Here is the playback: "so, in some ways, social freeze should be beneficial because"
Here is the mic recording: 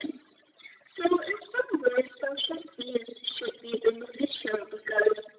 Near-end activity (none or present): none